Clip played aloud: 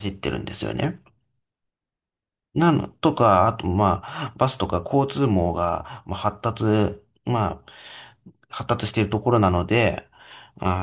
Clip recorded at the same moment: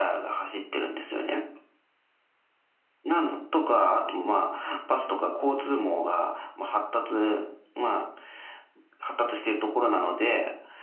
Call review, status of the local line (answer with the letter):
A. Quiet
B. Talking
A